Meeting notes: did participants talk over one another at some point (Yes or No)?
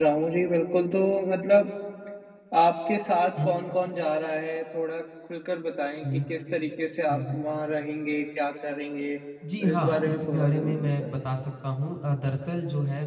Yes